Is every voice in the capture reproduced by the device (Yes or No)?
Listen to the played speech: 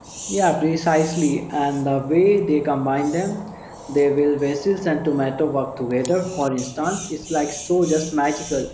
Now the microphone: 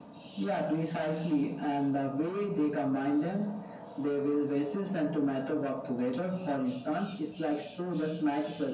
Yes